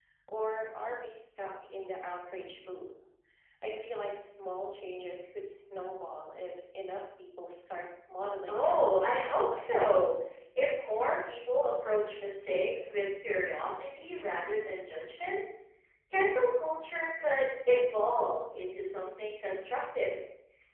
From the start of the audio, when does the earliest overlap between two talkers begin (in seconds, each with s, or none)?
8.5 s